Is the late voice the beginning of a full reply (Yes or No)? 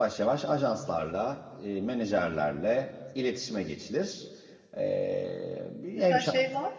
Yes